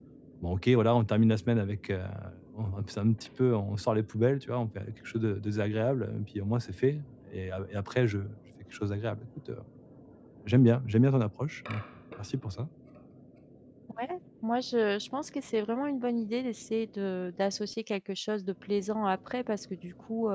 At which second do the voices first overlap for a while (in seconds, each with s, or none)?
none